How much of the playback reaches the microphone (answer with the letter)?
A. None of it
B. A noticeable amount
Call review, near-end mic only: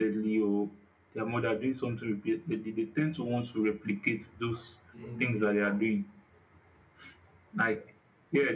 B